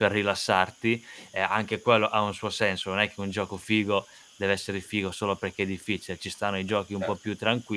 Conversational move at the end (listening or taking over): listening